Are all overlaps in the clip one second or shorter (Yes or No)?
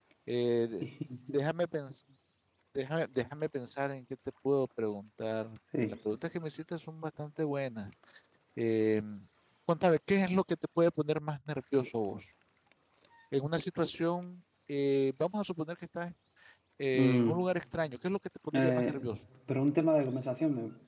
Yes